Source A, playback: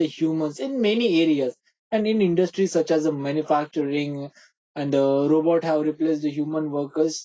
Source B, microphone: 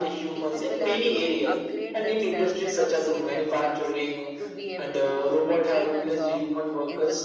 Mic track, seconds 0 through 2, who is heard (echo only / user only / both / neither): both